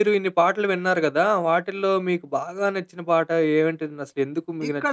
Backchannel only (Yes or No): No